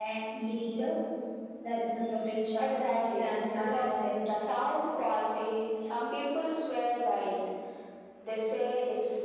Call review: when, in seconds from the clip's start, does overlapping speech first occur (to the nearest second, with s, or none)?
3 s